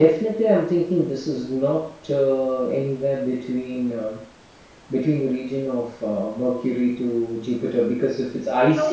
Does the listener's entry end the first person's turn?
Yes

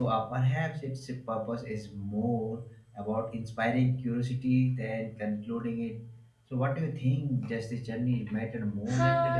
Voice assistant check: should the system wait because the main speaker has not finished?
No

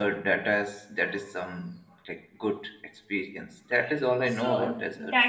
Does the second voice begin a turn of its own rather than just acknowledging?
Yes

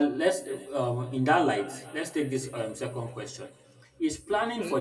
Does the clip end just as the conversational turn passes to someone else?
No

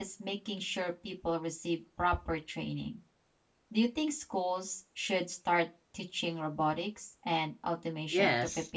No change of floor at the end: No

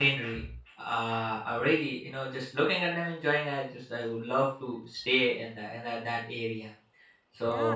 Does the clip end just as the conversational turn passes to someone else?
Yes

